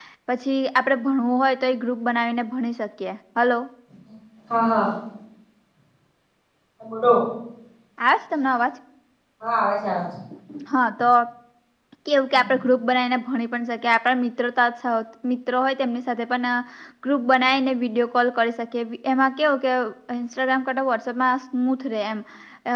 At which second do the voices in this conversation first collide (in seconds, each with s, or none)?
none